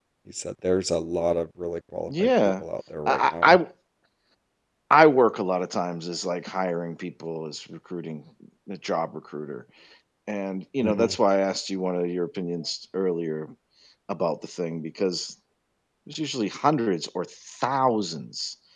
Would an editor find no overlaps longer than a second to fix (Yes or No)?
Yes